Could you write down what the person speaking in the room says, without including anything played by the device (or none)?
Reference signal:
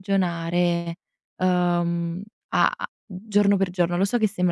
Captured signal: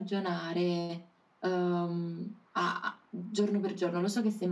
none